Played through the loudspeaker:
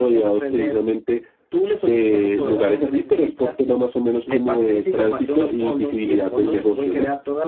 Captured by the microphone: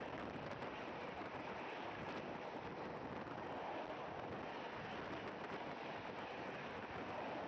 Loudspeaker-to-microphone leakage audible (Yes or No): No